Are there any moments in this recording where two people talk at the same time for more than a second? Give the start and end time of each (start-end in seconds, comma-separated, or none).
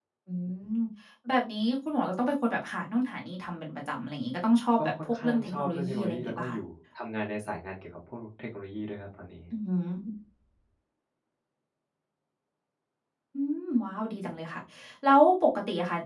4.8-6.6